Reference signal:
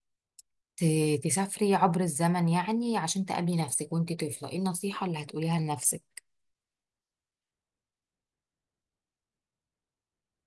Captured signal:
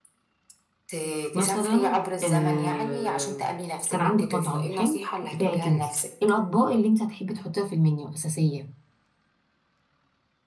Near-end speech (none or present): present